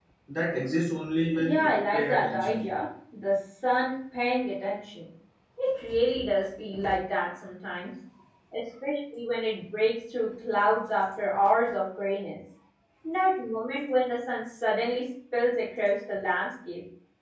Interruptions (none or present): present